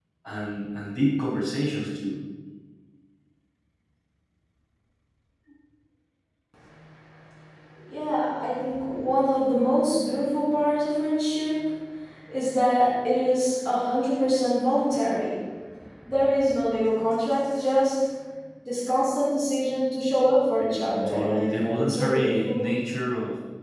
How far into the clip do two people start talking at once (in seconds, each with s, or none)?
21.1 s